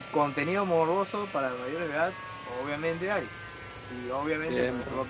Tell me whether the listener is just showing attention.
Yes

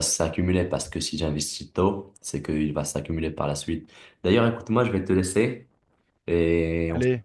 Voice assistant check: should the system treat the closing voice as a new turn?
Yes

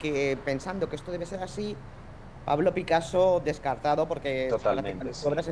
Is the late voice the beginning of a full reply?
No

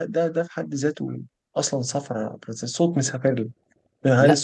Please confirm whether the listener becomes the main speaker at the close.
No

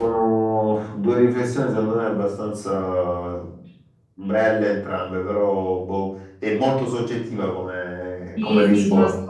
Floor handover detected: Yes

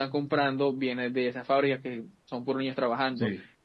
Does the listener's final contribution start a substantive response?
No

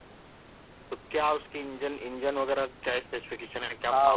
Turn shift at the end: Yes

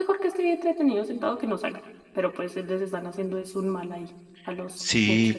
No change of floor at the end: No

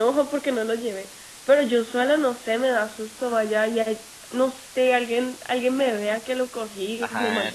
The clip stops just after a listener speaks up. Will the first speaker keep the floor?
No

